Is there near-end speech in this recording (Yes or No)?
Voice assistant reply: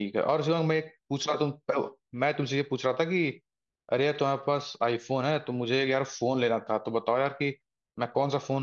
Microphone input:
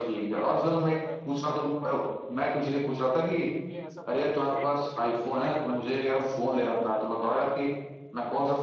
Yes